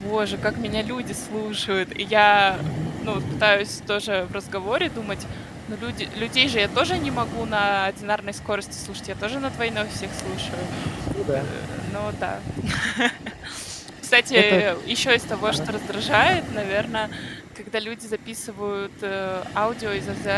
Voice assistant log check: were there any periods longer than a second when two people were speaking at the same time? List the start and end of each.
none

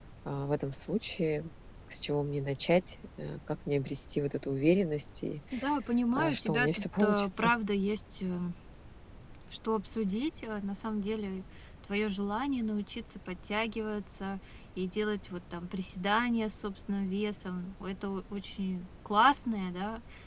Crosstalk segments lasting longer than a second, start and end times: 6.2-7.5

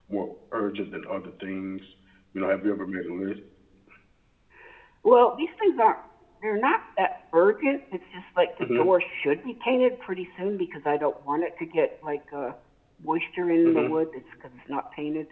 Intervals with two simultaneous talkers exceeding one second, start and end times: none

